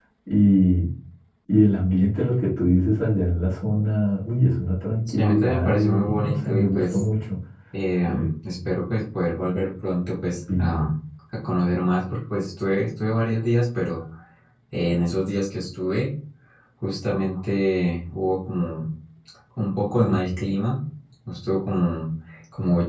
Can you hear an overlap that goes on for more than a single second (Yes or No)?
Yes